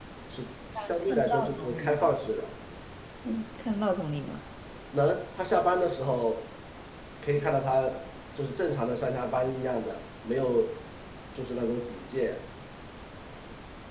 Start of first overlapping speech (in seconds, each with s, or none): 0.8 s